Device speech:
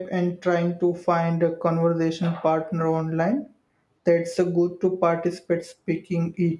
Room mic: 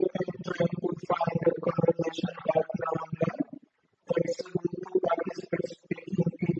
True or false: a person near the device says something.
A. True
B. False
B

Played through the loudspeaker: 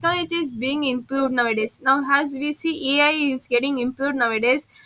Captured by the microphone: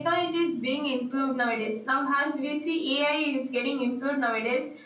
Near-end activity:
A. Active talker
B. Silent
B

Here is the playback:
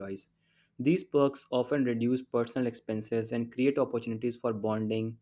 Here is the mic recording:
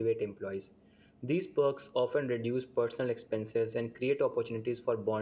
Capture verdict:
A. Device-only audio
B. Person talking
A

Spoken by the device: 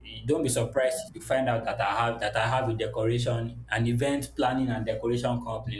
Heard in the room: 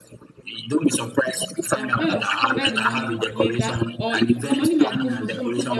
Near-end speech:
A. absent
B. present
B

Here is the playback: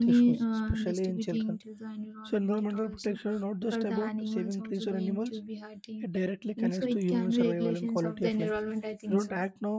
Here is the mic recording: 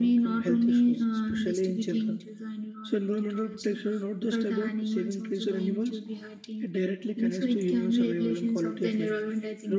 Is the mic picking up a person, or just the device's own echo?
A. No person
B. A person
A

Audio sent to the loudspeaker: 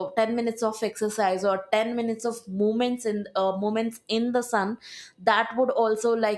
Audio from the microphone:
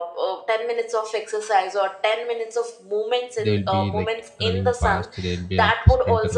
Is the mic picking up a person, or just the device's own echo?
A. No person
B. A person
B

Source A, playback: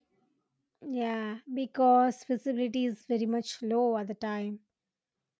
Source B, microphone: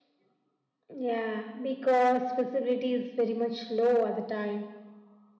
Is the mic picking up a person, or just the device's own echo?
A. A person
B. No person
B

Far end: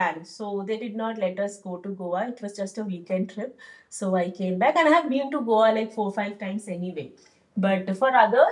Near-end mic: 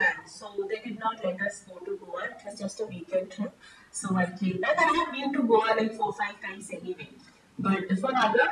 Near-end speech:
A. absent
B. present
A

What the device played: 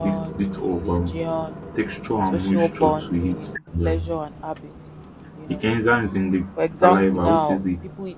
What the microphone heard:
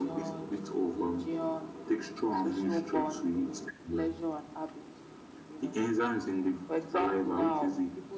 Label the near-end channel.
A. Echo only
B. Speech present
A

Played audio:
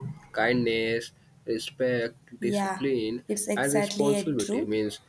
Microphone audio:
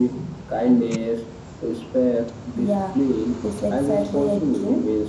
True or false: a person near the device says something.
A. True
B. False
B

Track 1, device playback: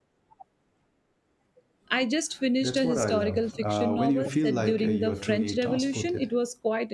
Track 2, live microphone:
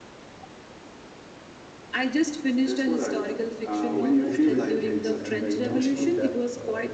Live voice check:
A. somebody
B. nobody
A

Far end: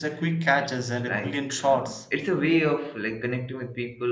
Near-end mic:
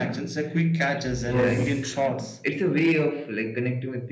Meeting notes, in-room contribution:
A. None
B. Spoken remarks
B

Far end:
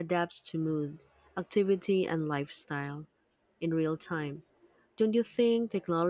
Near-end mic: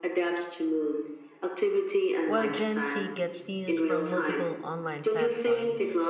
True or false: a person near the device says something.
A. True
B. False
A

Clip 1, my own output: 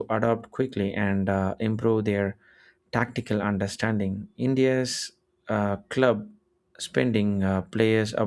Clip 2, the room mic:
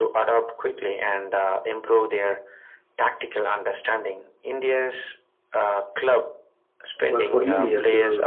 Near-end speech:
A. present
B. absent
A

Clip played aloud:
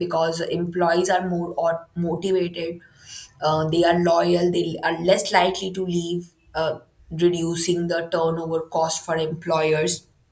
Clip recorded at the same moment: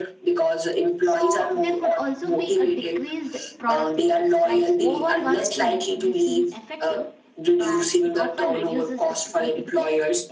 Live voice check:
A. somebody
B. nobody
A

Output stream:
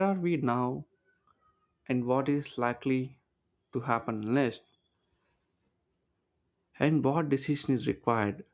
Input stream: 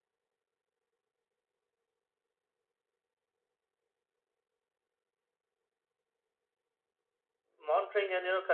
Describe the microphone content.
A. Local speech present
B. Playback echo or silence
A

